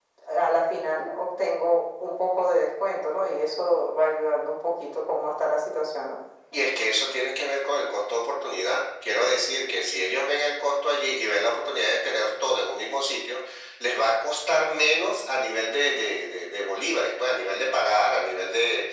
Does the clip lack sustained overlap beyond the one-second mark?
Yes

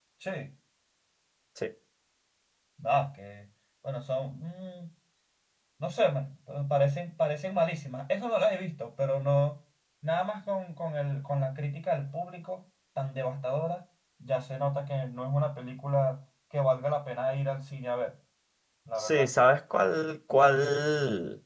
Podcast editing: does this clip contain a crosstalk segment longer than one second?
No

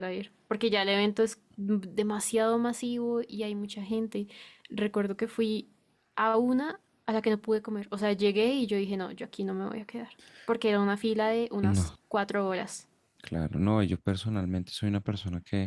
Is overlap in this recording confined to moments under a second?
Yes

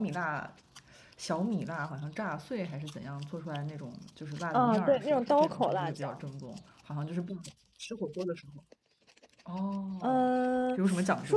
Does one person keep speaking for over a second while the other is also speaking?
Yes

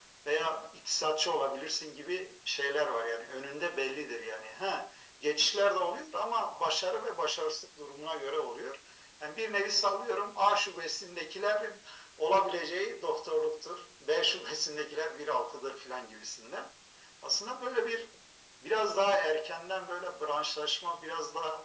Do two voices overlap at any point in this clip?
No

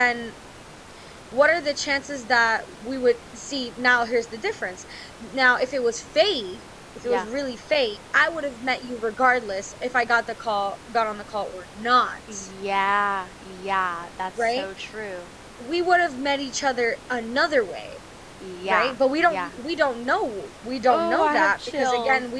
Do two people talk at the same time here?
Yes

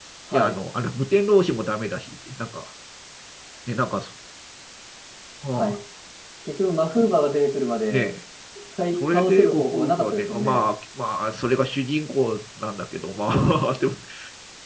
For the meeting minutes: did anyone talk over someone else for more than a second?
Yes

